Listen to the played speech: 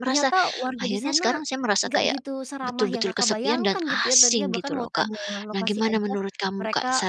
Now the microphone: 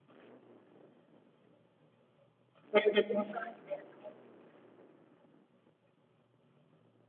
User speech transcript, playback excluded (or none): Kayak udah biasa gitu ya Kak